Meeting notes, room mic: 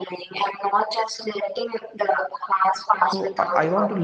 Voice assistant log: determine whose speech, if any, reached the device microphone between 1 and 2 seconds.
echo only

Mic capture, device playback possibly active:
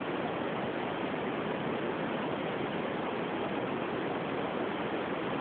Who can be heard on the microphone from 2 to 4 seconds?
neither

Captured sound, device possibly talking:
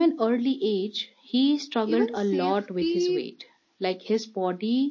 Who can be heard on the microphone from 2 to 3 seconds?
both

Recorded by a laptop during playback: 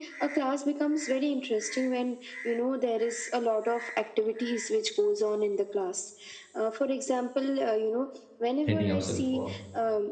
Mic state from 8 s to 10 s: both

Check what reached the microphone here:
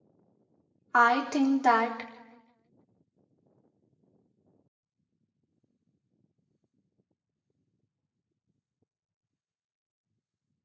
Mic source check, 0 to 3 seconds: user only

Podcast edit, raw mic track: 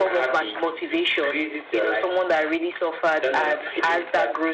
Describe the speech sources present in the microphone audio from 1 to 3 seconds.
echo only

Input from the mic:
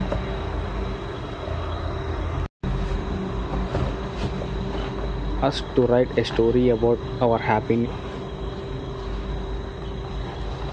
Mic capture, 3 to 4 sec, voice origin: neither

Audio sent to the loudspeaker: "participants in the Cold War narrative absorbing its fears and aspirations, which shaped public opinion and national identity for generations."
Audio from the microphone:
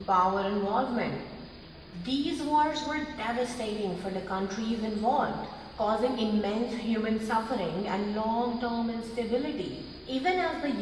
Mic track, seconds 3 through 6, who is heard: user only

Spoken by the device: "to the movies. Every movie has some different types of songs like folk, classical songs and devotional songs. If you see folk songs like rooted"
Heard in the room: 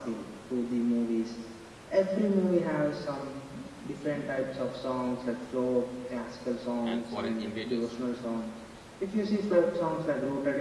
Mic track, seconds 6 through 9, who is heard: both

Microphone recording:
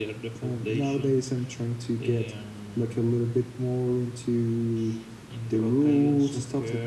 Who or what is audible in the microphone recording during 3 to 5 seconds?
echo only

